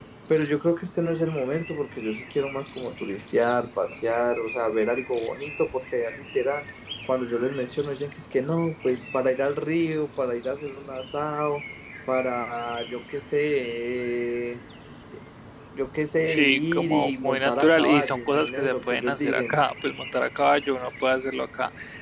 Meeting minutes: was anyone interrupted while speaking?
Yes, from 16.2 s

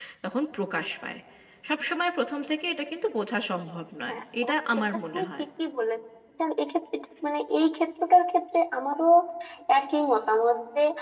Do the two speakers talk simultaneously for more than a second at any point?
Yes, from 4.1 s

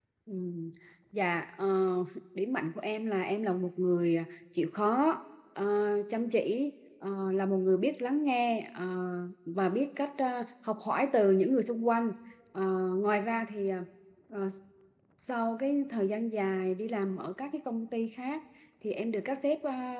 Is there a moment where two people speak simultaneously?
No

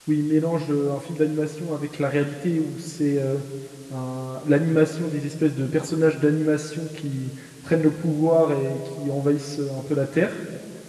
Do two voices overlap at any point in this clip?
No

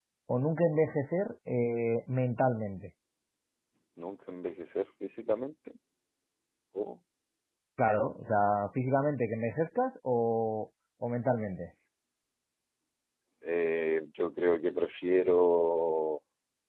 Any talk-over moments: No

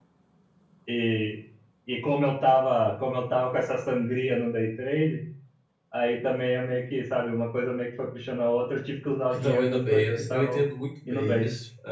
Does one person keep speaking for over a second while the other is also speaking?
Yes, from 9.3 s

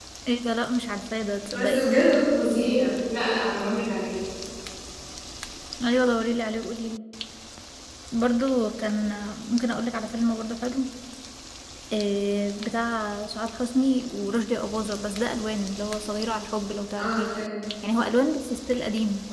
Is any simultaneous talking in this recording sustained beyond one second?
No

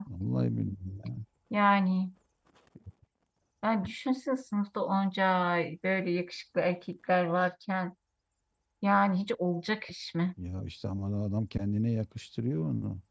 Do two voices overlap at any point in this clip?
No

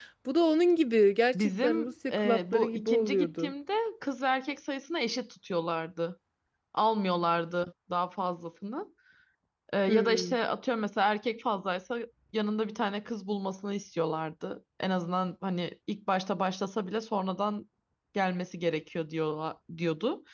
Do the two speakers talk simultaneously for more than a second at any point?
Yes, from 1.4 s

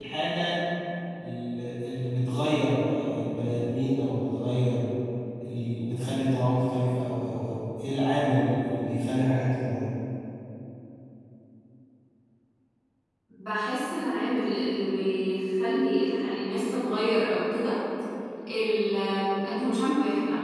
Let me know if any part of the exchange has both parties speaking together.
No

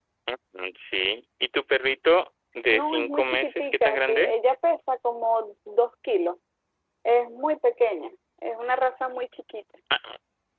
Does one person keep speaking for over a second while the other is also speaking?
Yes, from 2.7 s

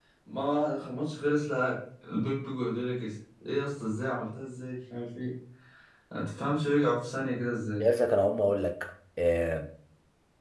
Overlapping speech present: No

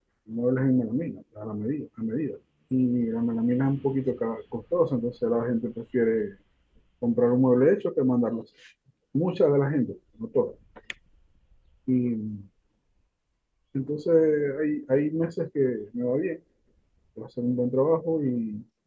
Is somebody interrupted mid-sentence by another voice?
No

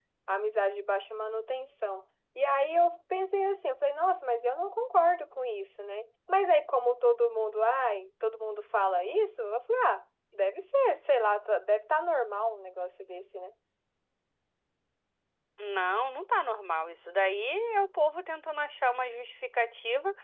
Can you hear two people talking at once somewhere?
No

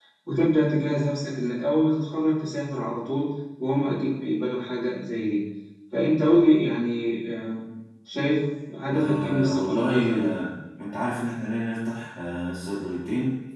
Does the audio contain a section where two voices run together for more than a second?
Yes, from 8.9 s

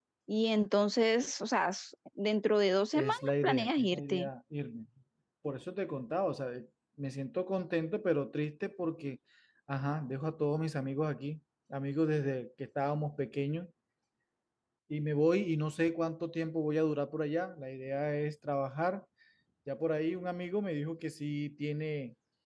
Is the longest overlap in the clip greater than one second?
Yes, from 2.9 s

